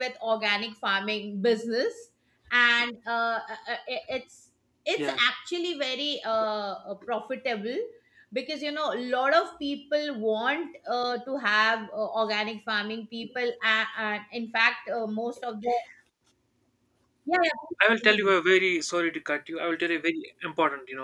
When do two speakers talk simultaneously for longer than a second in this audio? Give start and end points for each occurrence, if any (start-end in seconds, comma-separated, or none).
none